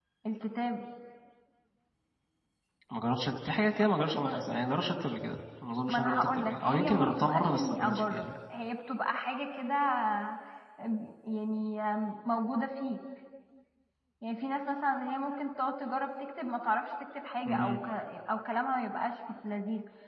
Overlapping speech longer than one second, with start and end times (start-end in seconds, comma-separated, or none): 5.9-8.3